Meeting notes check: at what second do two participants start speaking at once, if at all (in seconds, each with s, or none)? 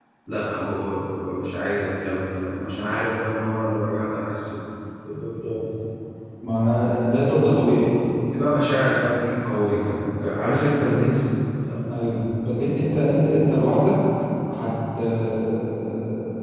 none